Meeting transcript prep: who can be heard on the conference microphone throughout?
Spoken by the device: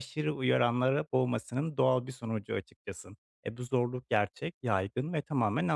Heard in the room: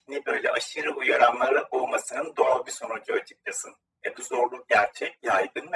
echo only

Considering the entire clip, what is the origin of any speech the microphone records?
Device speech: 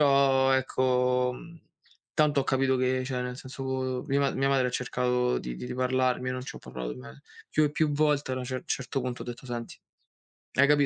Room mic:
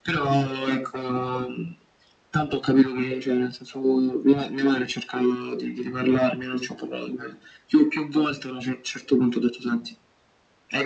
echo only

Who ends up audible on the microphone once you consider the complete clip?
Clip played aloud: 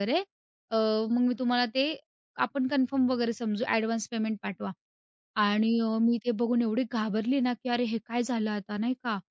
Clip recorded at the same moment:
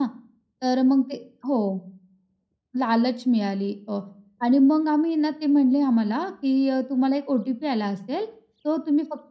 user only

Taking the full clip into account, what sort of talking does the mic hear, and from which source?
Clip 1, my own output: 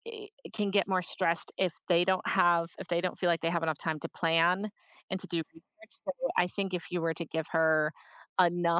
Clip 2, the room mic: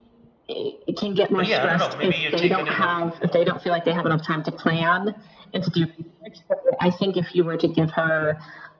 both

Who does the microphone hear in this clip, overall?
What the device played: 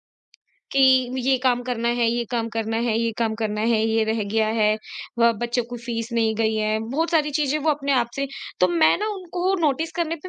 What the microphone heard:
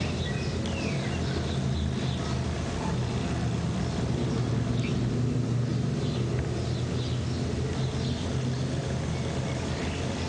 neither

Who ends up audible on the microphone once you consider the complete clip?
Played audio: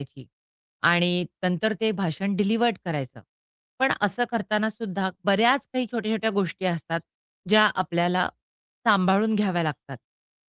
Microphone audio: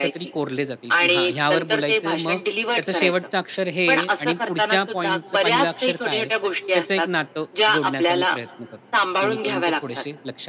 both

